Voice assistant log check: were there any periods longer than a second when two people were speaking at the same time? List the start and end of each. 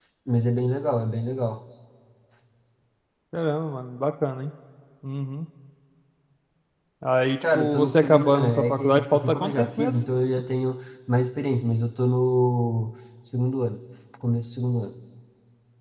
7.4-10.0

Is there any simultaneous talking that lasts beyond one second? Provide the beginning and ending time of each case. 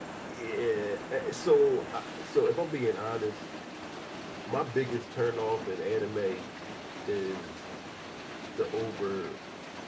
none

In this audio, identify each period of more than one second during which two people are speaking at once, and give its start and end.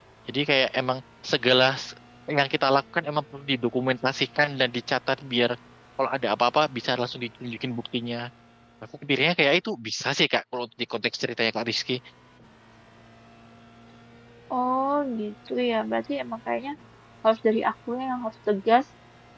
none

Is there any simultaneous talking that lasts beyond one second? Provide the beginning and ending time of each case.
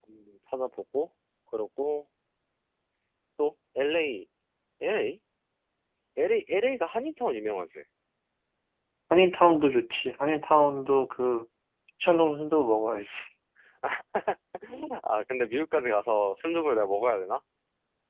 none

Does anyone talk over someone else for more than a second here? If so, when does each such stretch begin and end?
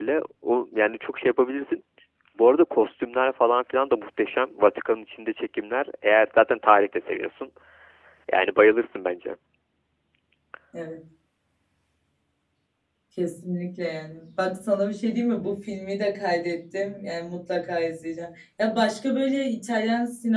none

